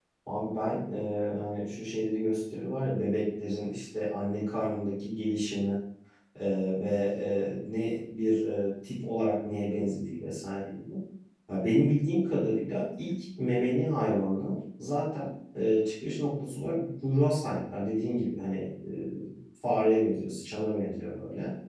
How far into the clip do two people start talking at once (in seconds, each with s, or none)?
none